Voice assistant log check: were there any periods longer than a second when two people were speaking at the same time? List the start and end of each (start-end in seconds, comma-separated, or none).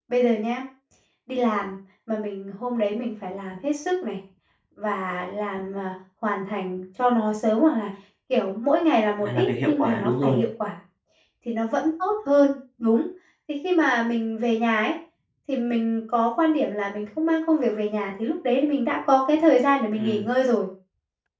9.2-10.4